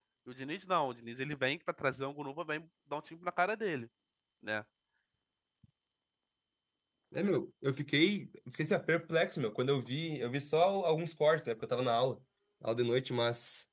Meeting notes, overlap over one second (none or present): none